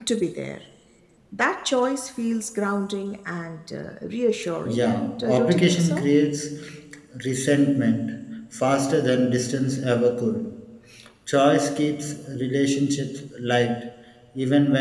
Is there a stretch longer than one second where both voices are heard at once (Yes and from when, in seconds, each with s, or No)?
Yes, from 4.6 s